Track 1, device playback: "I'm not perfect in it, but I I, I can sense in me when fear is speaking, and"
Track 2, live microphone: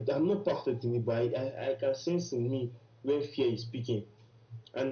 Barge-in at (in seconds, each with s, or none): none